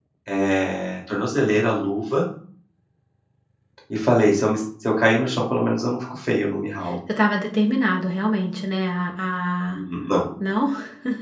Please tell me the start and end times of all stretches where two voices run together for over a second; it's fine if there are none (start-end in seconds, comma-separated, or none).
none